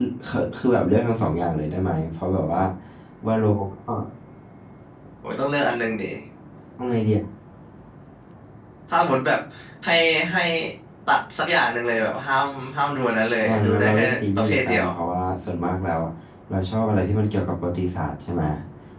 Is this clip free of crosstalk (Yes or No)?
No